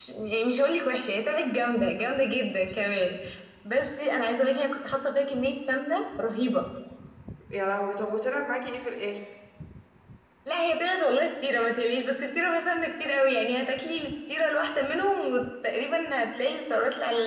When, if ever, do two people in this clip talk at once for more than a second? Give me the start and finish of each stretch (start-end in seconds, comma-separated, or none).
none